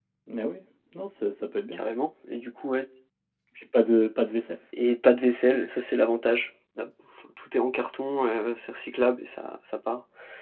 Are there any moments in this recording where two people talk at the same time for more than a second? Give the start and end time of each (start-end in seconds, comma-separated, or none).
none